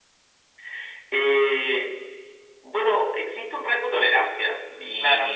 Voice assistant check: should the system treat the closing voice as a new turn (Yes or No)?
No